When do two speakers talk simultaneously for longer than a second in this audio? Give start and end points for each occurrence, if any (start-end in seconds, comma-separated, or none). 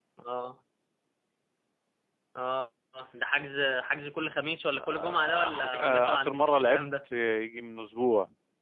4.7-6.8